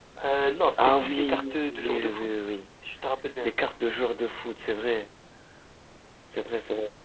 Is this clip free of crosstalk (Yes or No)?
No